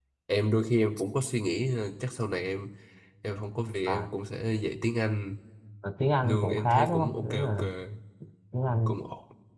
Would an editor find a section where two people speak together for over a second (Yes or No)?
Yes